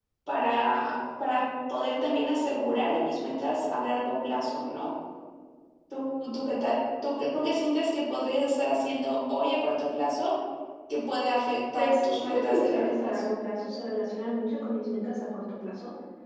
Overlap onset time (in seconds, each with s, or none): 11.7 s